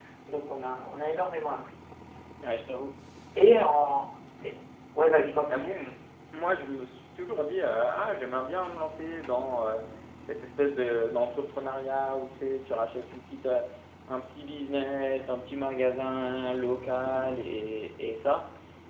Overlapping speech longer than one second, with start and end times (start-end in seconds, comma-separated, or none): none